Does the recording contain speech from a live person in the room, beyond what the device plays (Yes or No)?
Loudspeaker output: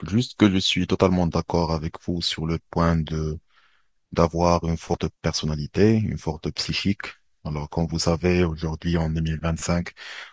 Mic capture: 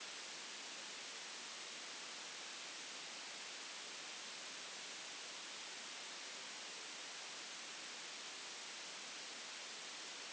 No